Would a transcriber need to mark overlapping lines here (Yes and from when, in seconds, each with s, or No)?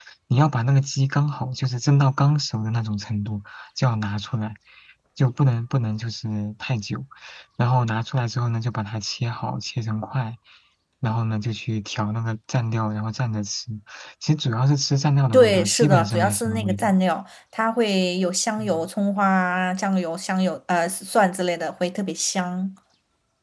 Yes, from 15.3 s